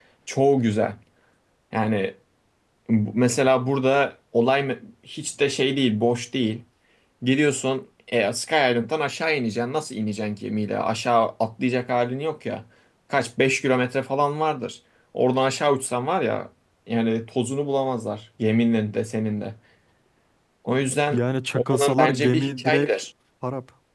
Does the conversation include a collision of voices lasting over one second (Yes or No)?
Yes